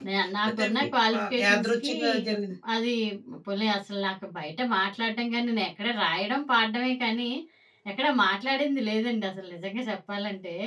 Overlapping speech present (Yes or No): Yes